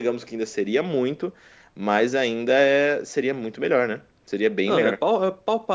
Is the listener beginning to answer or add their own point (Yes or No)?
Yes